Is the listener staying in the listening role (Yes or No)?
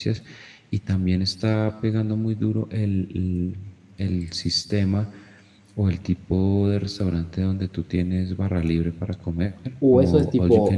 No